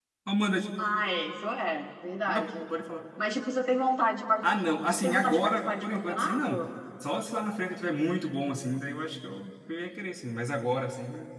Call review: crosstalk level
present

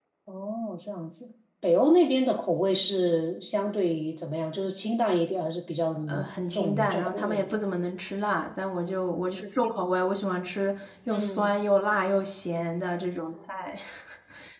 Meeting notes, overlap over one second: present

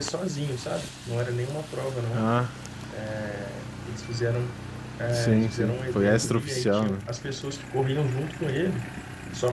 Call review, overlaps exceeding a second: present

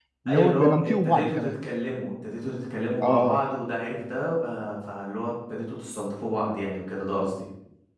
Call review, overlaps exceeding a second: present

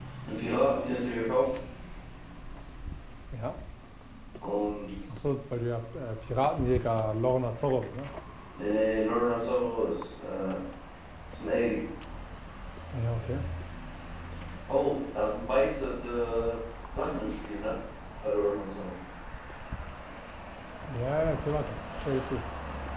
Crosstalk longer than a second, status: none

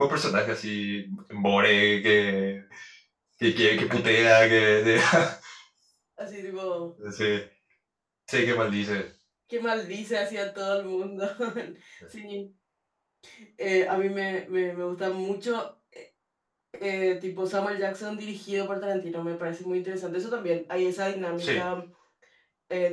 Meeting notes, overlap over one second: none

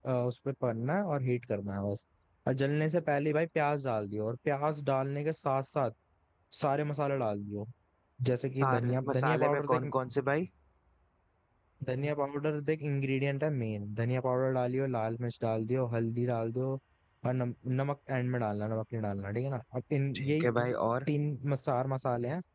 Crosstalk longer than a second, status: present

